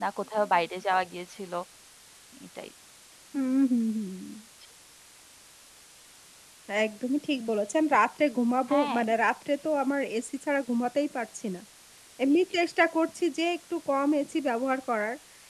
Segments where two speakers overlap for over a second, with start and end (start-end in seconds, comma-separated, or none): none